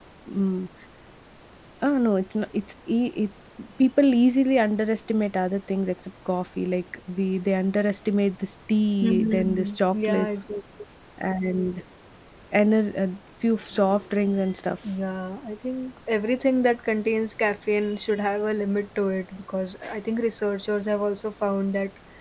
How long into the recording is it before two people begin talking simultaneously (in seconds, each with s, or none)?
9.0 s